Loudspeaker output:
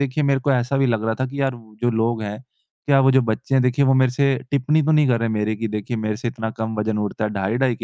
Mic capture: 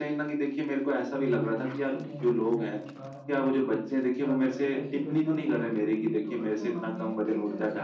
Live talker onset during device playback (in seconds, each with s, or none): 1.2 s